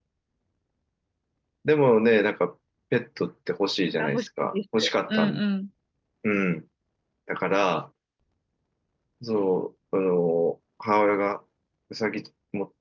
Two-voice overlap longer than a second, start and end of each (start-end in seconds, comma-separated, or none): 3.9-5.4